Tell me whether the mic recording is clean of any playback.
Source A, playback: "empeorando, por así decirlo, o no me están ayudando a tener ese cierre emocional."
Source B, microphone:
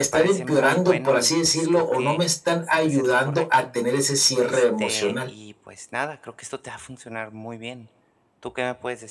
No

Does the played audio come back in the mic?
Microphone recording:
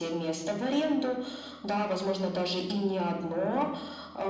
Yes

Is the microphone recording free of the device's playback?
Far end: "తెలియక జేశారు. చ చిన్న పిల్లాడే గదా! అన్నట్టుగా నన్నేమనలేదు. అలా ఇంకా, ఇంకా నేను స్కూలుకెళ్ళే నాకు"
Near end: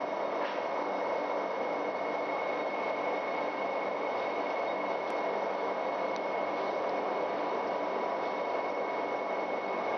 Yes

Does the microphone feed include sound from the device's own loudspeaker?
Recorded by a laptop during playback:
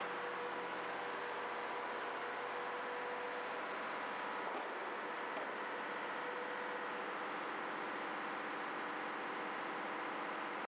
No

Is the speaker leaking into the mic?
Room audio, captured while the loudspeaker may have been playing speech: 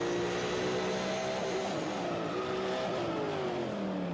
No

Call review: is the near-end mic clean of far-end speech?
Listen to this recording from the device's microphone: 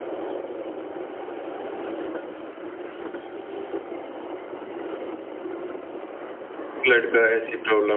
Yes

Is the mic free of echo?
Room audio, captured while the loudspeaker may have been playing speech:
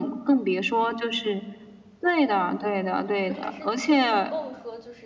No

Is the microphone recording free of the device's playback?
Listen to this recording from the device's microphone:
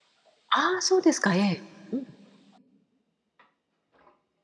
Yes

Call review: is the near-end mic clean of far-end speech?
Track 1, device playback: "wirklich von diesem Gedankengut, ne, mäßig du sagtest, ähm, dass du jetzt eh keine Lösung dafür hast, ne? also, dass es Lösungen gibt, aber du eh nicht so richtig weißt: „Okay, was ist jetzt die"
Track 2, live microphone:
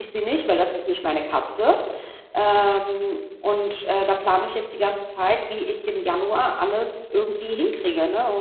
Yes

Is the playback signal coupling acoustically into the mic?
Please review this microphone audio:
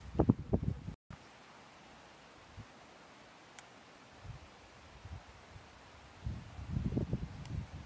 No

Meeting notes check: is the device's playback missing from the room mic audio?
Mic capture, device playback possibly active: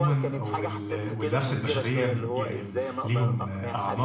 No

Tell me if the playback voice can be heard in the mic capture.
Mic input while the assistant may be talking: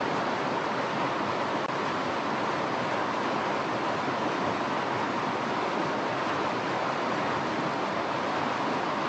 No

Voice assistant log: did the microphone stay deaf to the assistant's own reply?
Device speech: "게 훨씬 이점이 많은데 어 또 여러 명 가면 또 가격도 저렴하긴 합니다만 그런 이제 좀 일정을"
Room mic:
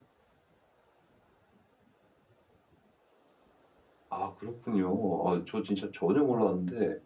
Yes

